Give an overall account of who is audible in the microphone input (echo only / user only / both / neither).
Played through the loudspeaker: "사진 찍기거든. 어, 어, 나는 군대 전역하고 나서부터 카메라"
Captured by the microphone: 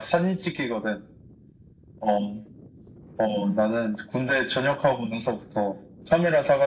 echo only